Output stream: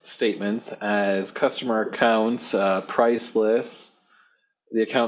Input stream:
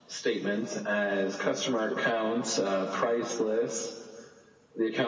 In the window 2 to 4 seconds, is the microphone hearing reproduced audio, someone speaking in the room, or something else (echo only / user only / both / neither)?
echo only